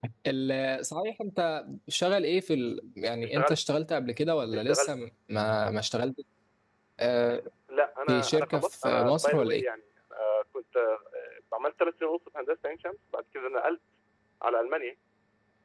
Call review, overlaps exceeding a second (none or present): present